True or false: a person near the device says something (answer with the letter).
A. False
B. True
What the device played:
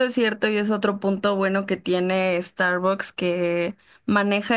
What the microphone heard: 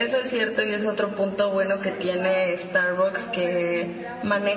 B